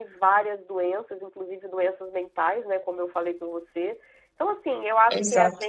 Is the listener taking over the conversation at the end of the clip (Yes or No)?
No